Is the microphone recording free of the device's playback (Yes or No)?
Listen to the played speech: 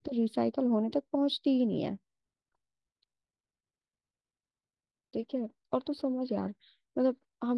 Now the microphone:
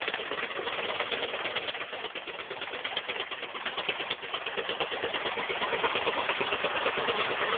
Yes